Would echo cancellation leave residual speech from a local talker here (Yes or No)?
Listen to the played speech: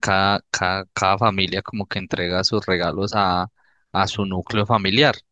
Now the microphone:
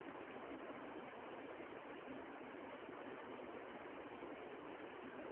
No